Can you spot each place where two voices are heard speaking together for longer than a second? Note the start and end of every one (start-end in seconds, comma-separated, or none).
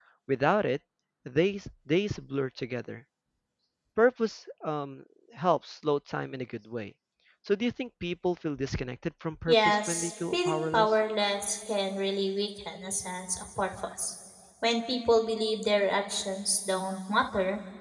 9.5-10.9